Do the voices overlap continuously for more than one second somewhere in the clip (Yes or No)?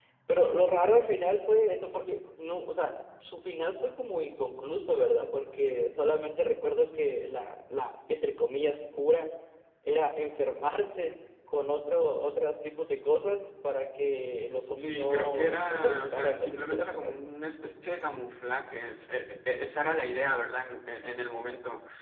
Yes